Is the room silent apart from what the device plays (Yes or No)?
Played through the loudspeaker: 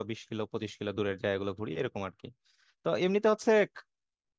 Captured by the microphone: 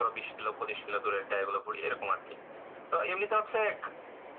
Yes